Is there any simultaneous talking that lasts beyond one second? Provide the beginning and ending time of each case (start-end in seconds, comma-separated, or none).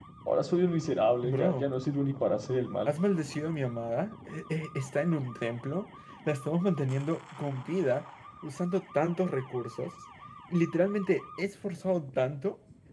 none